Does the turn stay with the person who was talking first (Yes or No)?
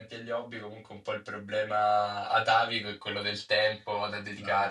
No